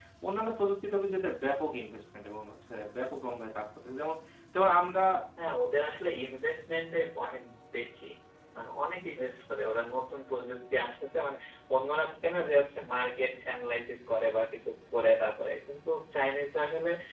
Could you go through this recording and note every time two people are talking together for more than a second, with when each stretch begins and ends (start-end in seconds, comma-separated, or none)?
none